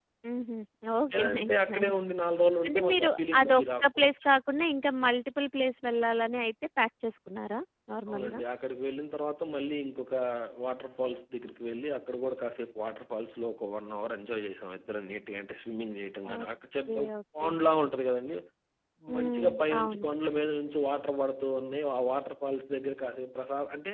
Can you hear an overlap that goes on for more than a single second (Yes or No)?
Yes